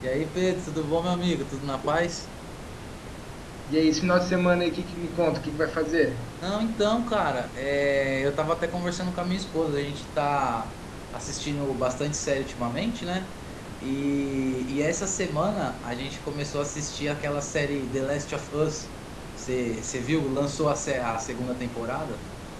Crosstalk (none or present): none